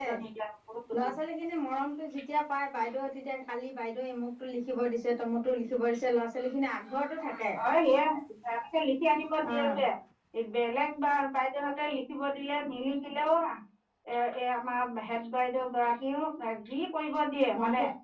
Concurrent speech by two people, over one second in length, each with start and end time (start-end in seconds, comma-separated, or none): none